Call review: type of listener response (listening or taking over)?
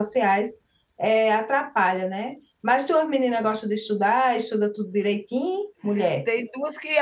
taking over